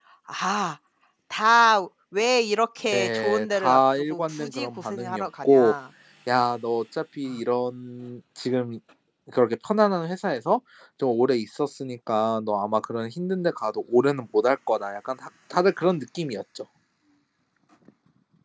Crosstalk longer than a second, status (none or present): present